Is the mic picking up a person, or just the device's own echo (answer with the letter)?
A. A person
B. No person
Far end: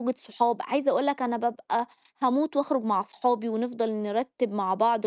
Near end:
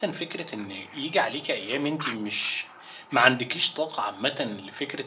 A